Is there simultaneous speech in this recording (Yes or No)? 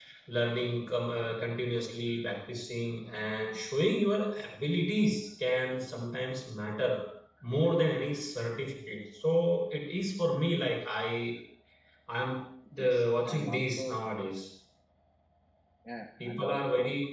Yes